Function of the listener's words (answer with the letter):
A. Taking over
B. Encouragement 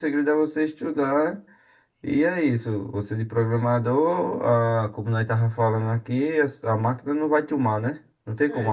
A